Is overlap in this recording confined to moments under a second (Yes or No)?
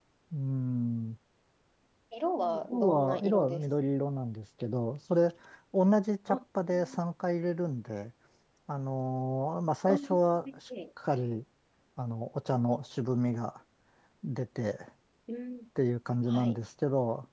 No